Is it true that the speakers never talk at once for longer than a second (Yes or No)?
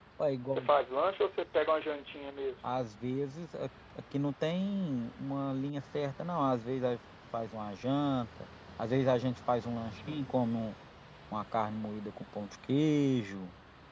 Yes